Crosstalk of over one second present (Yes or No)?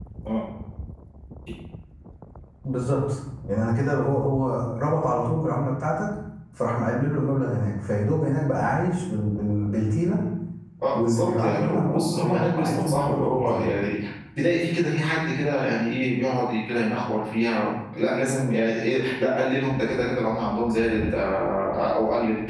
Yes